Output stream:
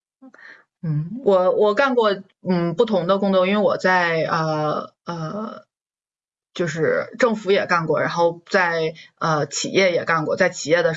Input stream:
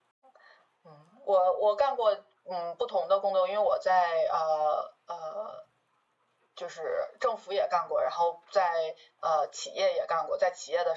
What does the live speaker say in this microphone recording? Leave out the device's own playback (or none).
none